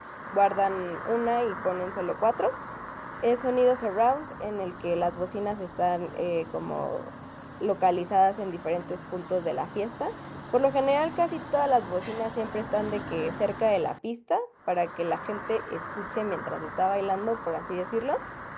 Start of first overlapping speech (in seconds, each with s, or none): none